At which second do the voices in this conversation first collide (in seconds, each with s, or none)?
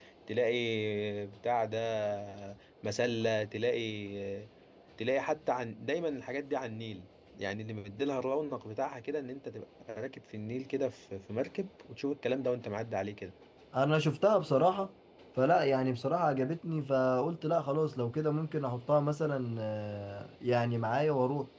none